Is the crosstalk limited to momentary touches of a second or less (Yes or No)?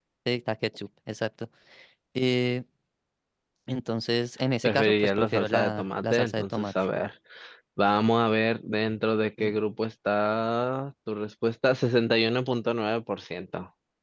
No